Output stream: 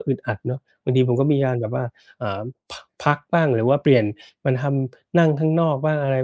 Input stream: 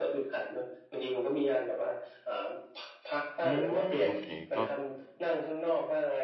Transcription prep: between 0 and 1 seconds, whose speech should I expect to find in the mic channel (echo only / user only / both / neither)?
echo only